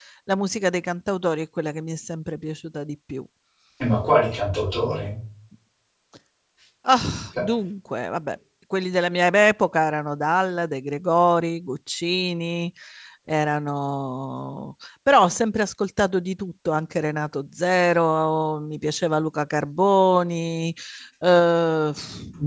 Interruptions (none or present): none